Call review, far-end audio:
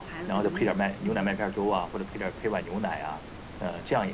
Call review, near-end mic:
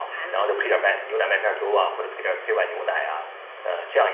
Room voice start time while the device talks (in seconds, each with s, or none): none